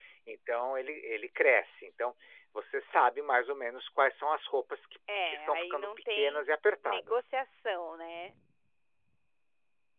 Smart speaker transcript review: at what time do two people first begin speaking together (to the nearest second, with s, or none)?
5 s